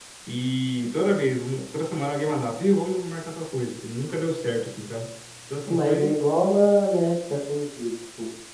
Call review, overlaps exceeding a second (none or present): none